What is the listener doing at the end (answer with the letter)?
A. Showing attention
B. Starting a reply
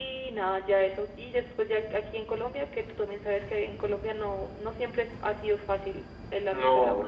B